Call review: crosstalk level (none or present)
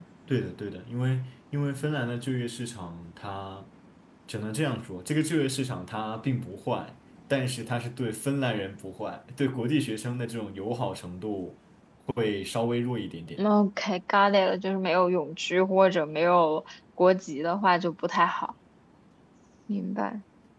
none